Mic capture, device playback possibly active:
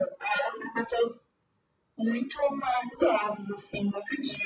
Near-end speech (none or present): none